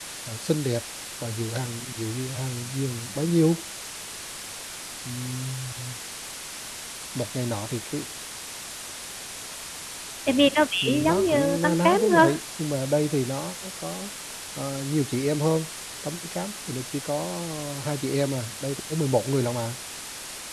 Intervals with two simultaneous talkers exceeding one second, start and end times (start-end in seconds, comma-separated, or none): 10.8-12.3